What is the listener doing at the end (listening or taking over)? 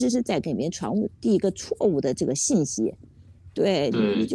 listening